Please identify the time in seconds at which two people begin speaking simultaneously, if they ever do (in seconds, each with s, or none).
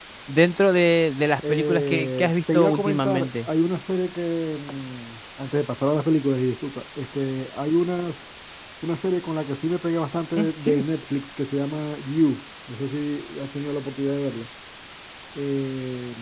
1.5 s